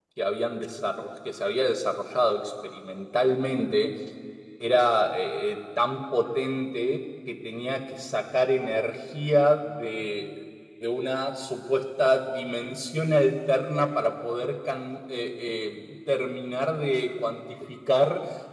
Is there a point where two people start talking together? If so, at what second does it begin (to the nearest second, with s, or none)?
none